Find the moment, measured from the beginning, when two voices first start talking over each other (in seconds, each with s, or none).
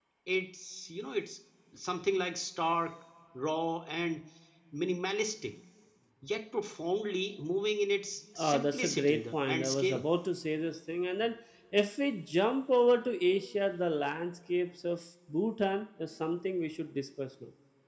8.4 s